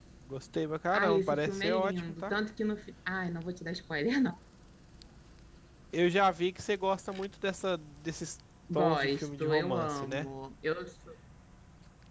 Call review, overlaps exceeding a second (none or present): present